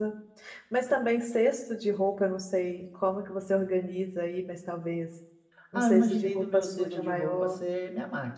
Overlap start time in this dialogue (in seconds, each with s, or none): 5.7 s